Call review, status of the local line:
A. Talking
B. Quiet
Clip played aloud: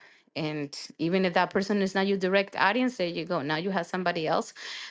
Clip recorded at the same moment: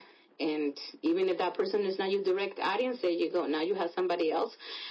B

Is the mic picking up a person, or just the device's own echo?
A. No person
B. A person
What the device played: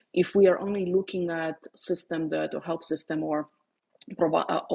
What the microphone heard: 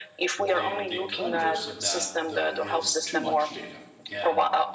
B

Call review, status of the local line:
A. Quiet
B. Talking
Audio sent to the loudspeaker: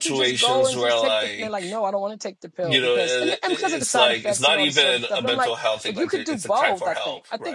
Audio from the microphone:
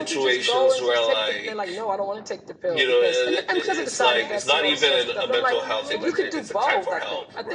B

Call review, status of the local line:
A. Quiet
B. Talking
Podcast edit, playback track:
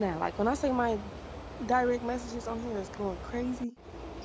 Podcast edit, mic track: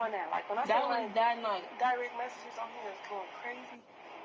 B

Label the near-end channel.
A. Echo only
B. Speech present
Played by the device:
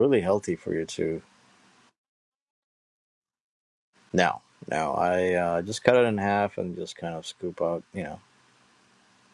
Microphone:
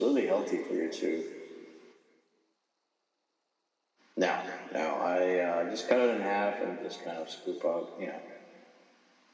A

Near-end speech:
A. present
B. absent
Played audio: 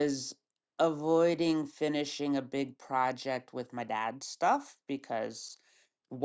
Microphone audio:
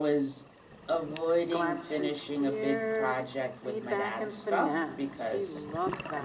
A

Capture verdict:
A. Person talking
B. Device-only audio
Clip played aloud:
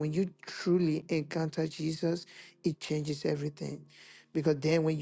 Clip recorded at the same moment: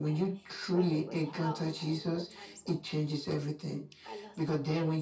A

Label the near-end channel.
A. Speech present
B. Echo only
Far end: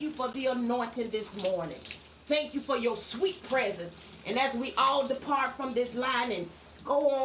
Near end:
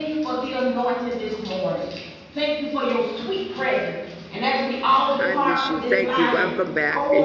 A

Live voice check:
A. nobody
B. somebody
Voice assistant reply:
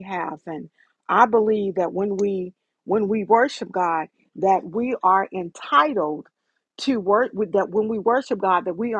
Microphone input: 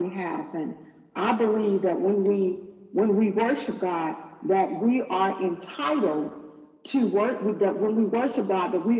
A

